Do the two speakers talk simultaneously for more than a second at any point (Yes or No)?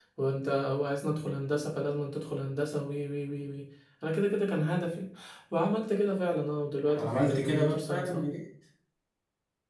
Yes